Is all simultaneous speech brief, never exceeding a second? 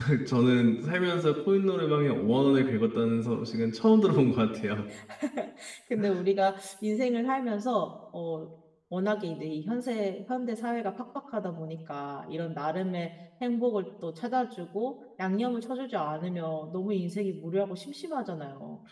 Yes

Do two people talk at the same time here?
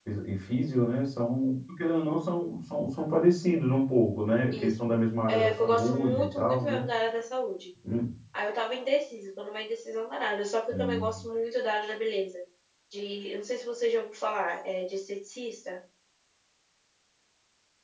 Yes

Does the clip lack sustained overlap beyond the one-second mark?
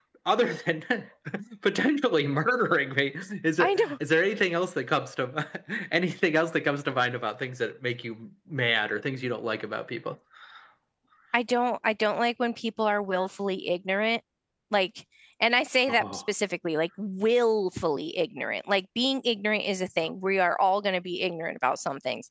Yes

